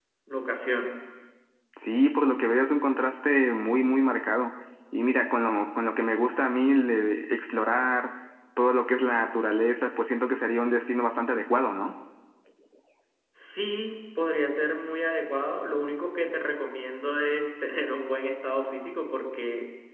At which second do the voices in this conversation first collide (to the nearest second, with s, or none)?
none